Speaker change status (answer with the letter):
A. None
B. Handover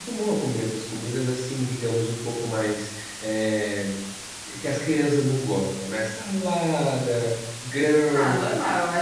B